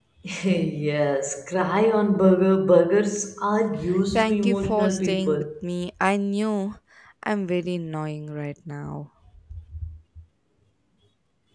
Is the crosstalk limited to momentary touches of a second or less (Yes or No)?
No